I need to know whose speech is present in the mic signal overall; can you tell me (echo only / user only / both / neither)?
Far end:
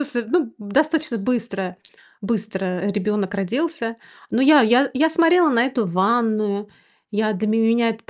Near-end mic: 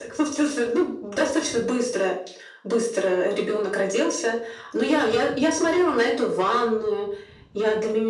echo only